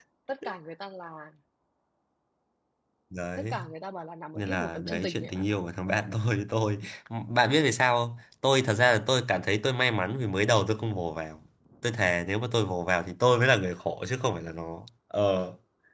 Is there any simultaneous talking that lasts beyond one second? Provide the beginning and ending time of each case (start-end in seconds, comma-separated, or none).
4.3-5.6